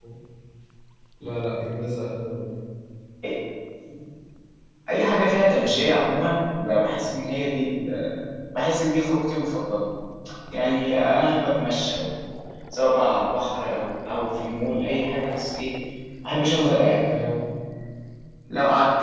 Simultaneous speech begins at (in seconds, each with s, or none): none